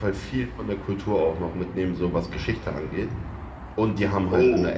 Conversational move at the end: listening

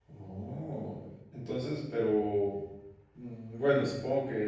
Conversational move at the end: listening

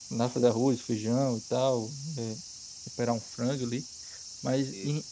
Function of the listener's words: listening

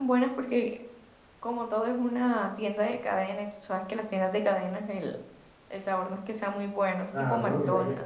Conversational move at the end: taking over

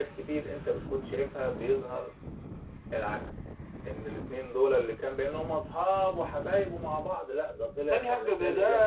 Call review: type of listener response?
taking over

